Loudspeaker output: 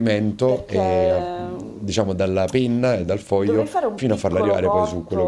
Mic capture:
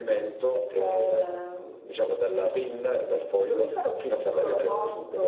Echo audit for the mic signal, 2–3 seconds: echo only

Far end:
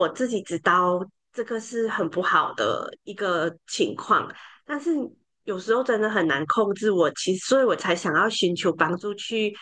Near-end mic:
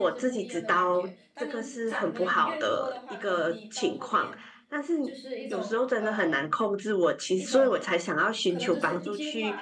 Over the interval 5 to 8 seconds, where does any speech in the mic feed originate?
both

